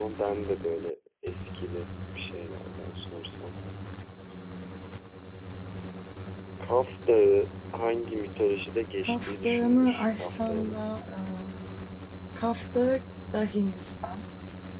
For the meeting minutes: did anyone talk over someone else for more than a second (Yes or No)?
Yes